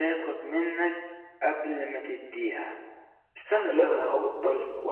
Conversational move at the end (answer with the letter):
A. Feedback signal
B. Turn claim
B